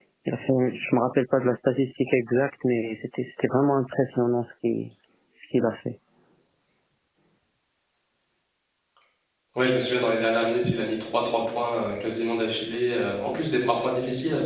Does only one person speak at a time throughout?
Yes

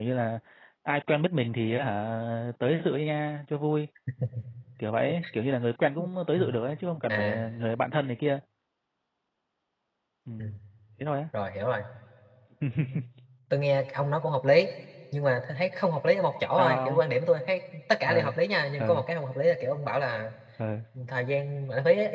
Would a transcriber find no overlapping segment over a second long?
Yes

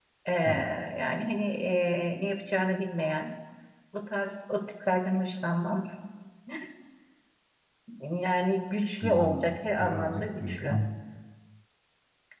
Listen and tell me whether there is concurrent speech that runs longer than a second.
Yes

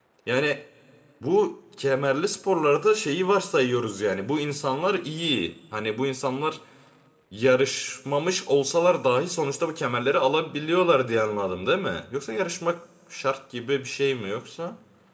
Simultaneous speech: No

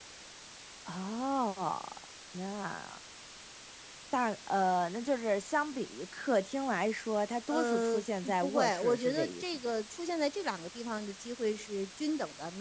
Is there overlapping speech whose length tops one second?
Yes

